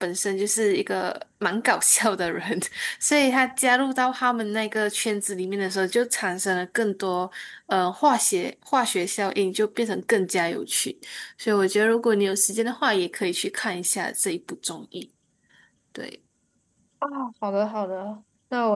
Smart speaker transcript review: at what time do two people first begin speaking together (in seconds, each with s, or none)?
none